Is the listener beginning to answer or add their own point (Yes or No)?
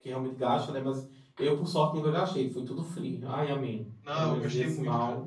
Yes